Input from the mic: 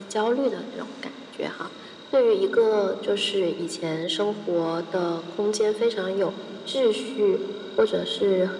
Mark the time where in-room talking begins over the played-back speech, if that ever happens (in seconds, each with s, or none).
none